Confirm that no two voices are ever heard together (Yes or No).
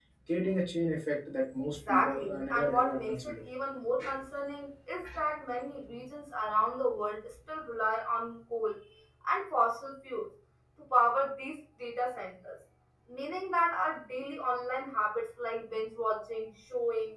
No